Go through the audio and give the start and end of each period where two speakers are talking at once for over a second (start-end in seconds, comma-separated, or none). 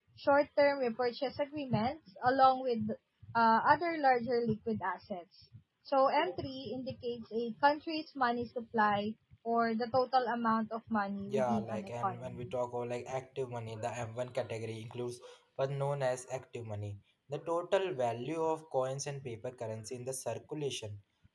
11.3-12.5